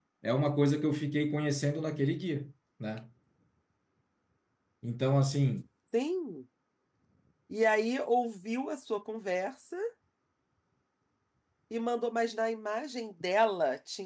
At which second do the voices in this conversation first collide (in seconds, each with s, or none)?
none